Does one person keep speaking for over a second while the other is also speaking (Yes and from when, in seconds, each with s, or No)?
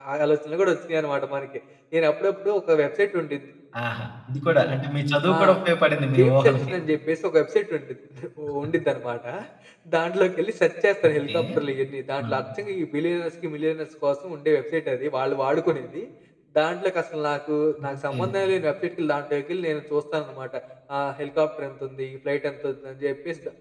No